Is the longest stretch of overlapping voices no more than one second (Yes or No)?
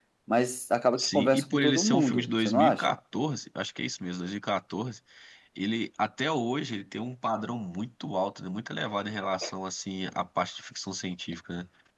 No